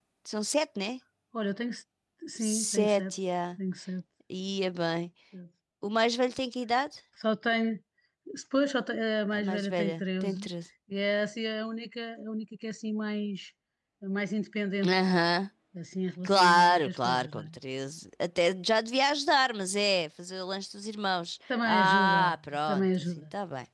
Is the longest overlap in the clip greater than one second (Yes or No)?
Yes